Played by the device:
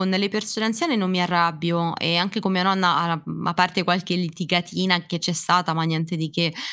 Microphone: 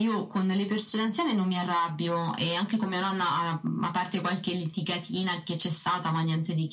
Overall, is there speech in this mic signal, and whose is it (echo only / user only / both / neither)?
echo only